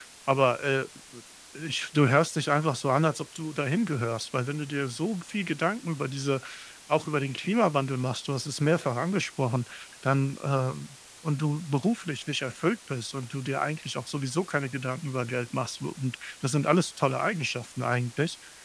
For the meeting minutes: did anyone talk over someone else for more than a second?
No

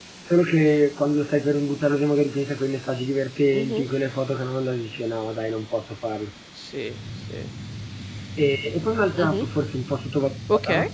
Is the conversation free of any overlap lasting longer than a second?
Yes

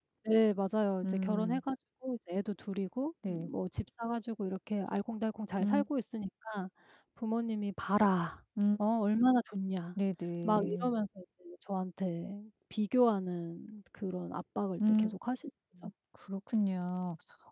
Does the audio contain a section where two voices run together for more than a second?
No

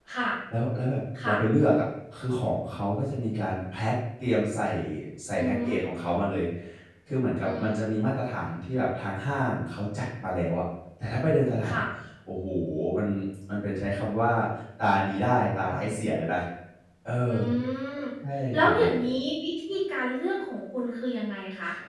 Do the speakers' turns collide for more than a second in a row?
No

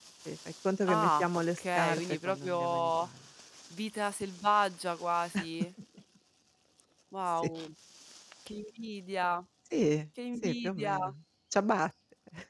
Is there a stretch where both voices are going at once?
Yes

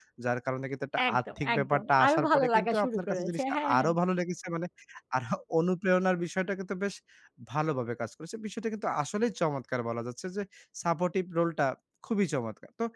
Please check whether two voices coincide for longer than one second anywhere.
Yes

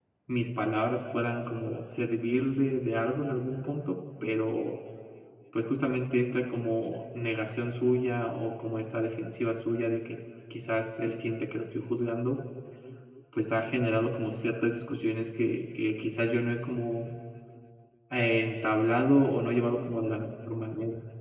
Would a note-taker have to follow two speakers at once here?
No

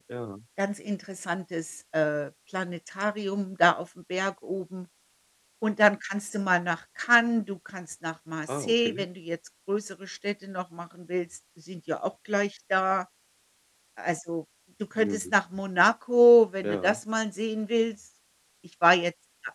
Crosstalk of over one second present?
No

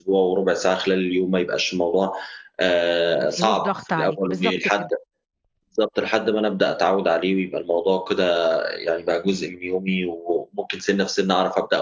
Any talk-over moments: Yes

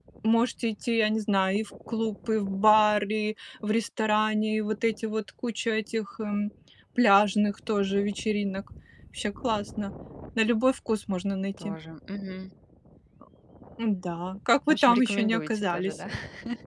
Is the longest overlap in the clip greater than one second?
Yes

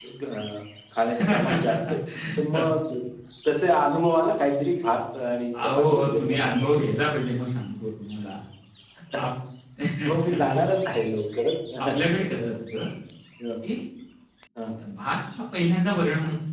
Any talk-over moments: Yes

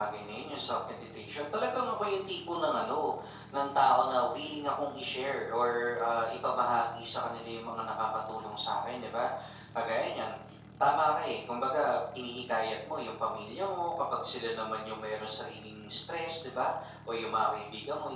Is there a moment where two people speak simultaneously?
No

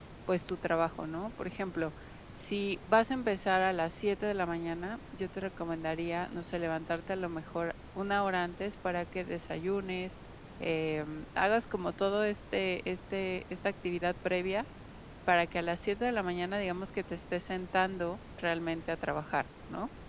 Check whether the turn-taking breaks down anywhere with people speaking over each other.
No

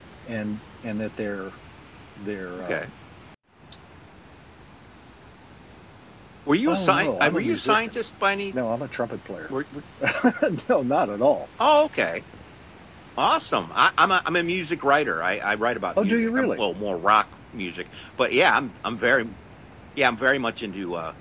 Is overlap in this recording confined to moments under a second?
No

